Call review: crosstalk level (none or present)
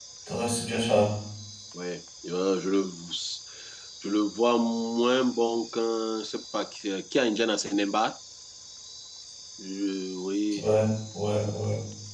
none